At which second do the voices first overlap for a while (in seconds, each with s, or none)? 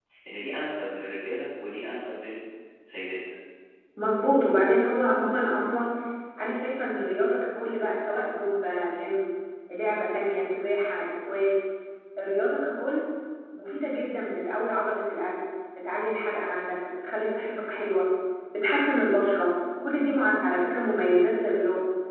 none